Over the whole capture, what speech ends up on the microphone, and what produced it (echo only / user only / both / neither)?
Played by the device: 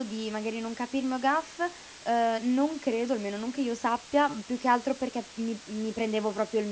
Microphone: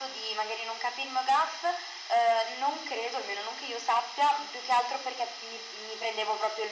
echo only